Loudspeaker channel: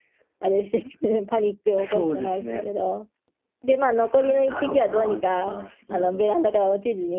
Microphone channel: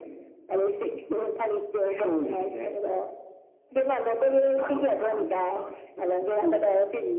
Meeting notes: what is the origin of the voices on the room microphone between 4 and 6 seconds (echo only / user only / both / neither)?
echo only